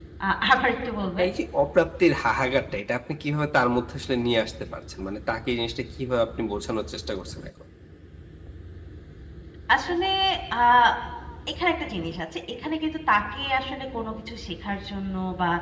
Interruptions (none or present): none